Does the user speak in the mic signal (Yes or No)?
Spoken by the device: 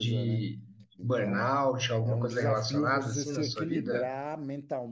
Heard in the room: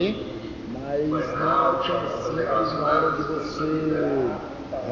Yes